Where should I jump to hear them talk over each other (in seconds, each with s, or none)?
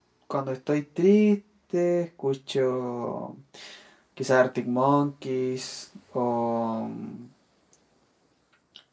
none